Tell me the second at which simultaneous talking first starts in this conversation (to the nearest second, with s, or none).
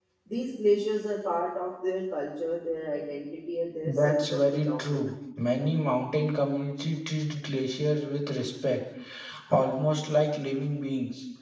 4 s